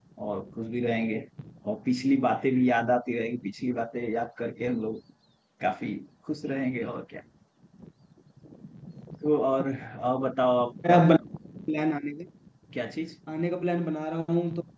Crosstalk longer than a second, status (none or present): none